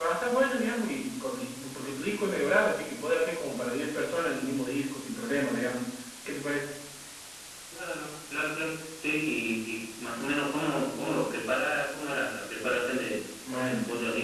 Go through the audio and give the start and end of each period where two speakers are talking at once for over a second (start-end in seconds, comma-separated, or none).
none